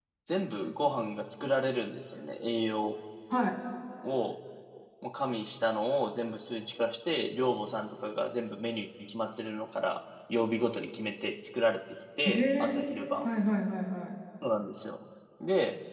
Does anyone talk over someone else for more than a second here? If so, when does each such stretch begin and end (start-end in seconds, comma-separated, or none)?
none